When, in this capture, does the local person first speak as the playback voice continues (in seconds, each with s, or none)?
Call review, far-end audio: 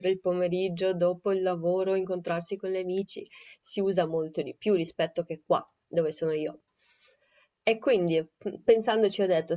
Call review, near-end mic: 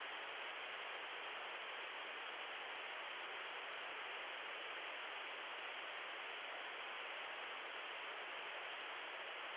none